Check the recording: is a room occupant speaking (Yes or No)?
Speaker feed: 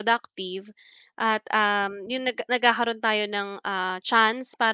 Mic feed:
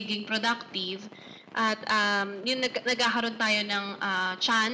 No